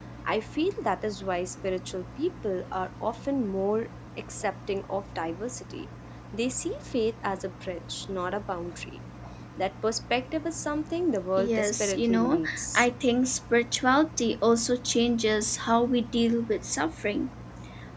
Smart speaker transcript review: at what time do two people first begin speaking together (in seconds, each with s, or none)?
11.4 s